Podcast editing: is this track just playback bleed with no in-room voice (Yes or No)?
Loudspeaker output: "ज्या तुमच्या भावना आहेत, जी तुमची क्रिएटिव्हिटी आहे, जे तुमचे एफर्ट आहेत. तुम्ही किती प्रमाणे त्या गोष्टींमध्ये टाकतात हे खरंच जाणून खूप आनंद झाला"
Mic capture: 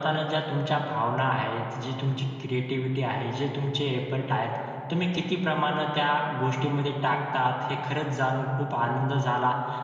Yes